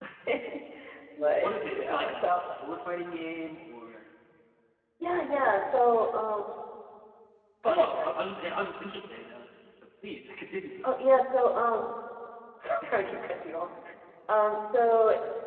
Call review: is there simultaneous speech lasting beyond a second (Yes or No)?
Yes